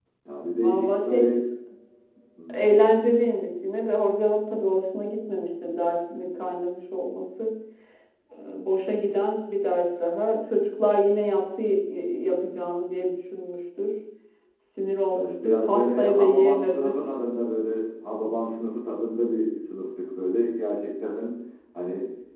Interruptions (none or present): present